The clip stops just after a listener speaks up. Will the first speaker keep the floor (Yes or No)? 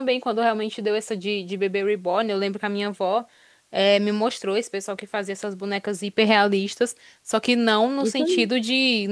Yes